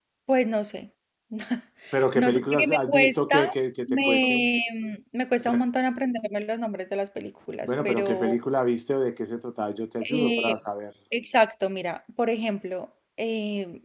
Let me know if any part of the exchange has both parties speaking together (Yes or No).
Yes